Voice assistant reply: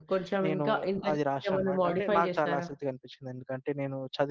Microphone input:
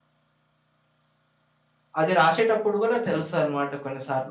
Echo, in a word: none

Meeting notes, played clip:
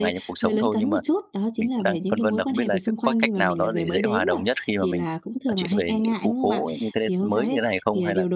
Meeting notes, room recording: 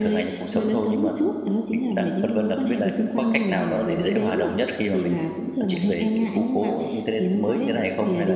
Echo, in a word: present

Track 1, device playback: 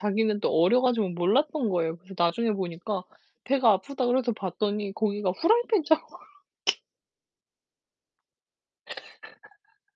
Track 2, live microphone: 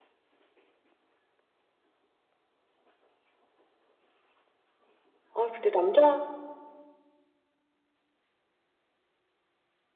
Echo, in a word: none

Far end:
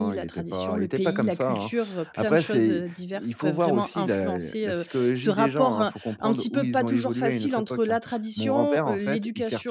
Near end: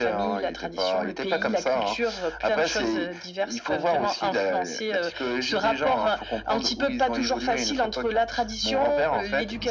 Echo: present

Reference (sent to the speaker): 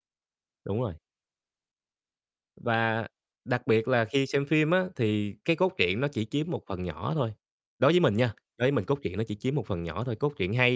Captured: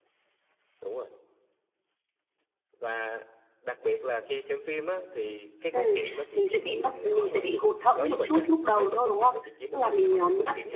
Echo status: present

